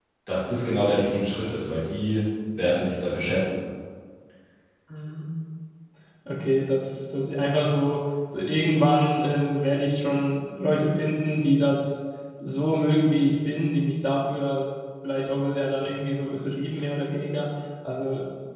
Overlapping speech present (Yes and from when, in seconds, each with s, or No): No